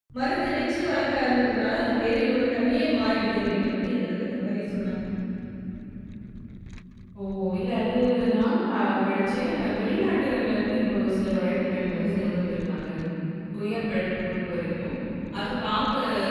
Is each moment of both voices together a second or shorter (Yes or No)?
Yes